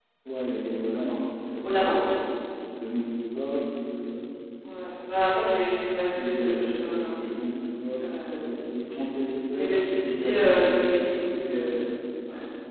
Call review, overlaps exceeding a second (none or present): present